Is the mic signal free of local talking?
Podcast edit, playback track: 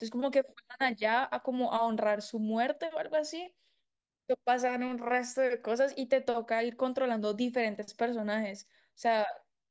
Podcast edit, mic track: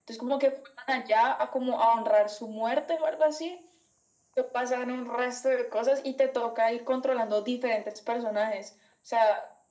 Yes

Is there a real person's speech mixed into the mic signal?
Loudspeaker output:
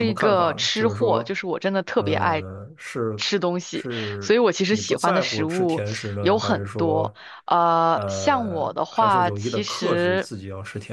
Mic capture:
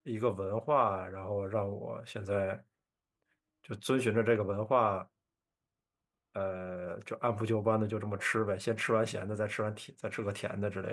Yes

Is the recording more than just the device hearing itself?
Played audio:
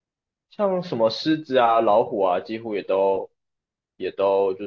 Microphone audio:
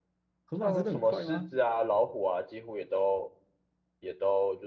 Yes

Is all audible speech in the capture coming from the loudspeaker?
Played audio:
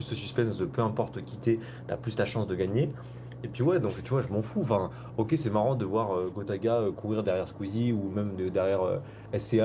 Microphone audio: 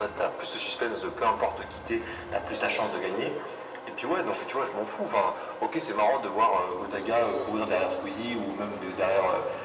Yes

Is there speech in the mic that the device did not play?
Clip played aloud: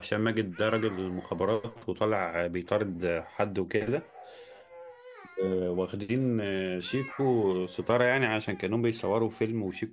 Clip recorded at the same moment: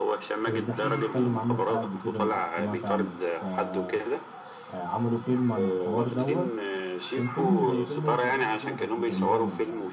Yes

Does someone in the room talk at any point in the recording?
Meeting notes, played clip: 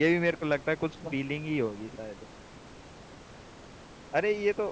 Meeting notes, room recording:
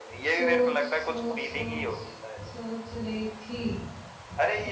Yes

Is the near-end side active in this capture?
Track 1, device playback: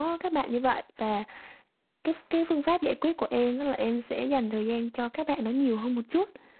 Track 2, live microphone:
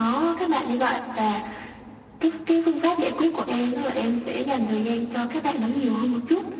No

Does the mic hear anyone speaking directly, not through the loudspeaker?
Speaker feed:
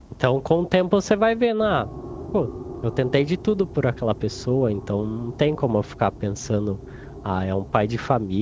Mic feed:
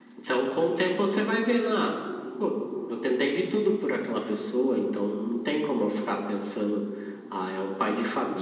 No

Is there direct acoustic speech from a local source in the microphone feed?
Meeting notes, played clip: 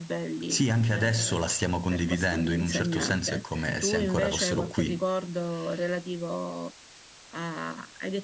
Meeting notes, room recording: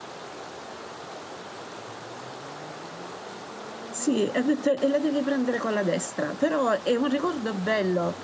Yes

